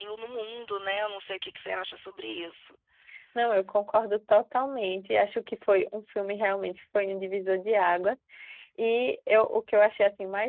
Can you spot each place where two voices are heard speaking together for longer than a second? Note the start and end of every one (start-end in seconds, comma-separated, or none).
none